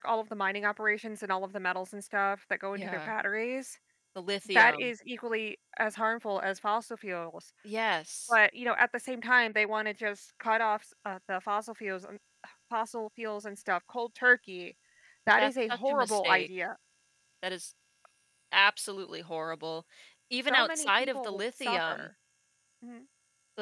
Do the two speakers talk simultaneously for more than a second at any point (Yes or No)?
Yes